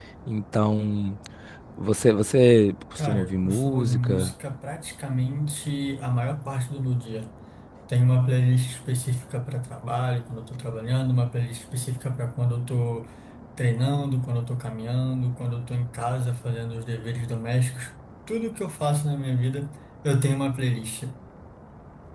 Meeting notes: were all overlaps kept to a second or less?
No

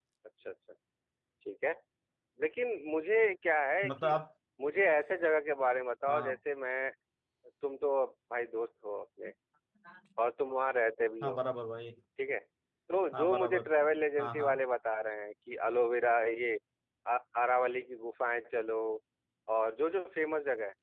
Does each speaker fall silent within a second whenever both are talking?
Yes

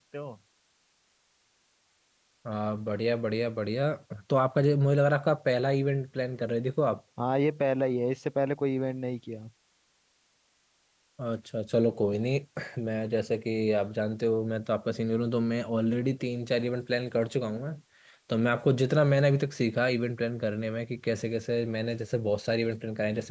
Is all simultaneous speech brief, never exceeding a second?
Yes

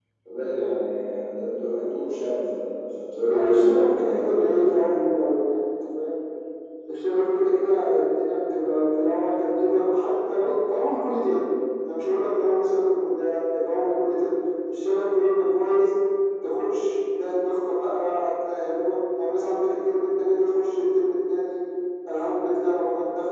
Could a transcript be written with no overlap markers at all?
No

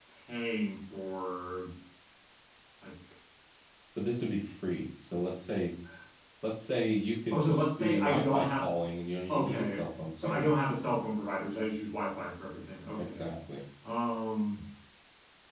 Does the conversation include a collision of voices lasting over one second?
Yes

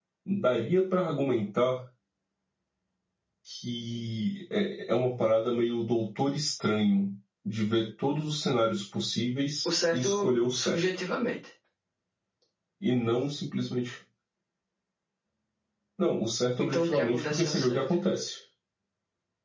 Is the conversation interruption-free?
No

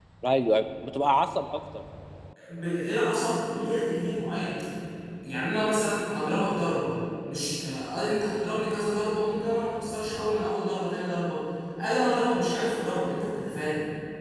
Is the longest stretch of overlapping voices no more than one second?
Yes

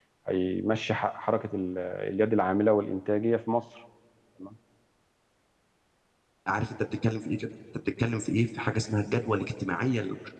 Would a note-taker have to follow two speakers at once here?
No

